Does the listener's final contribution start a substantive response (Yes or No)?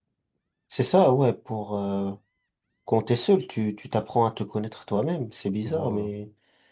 No